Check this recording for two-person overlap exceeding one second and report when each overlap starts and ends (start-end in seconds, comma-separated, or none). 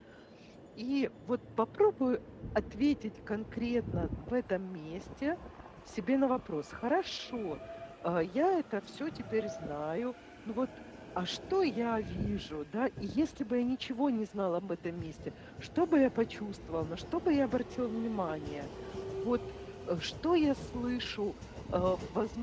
none